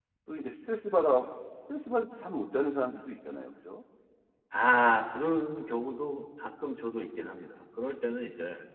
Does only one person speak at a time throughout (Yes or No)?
Yes